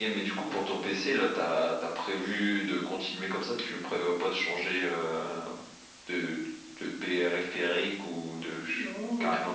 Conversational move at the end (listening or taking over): taking over